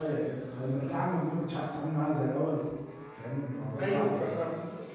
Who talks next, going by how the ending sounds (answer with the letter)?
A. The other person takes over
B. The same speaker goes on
A